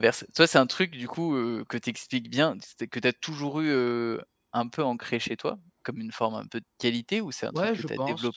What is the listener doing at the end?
taking over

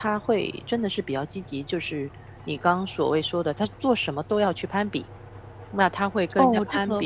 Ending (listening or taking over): taking over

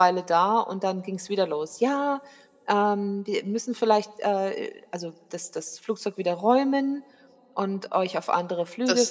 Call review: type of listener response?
taking over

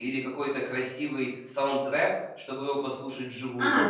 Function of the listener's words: taking over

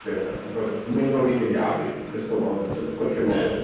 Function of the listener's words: taking over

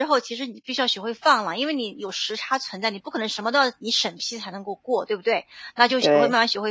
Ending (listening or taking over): listening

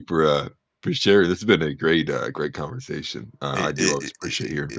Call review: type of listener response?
taking over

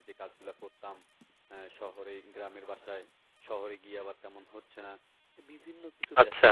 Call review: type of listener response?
listening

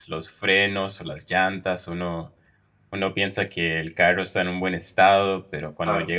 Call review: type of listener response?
listening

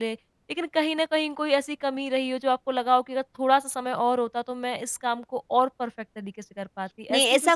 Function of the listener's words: taking over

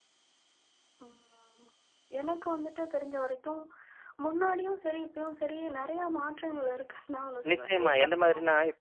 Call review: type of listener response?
taking over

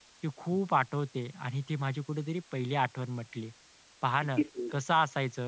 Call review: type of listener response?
listening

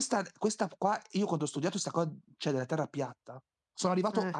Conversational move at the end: listening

